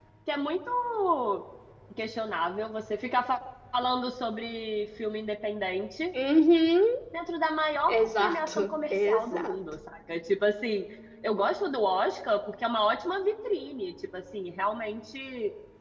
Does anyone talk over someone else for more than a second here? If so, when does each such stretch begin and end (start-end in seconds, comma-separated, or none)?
7.9-9.6